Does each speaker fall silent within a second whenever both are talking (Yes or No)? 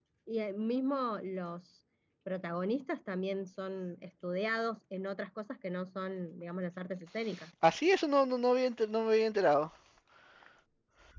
Yes